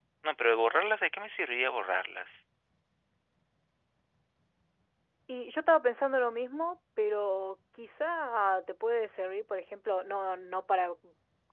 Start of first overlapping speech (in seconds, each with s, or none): none